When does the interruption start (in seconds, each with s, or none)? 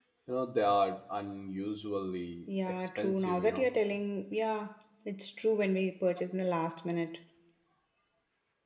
2.5 s